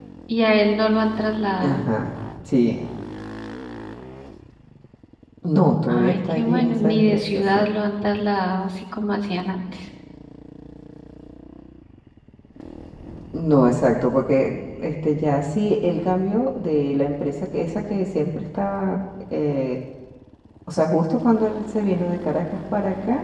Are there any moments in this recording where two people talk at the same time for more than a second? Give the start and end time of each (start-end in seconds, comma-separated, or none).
5.8-7.6